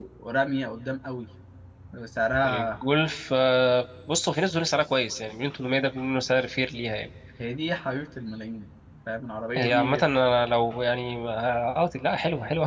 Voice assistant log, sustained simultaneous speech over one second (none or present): none